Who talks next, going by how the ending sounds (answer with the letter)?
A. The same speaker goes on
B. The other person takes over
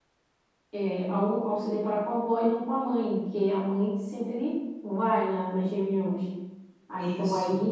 A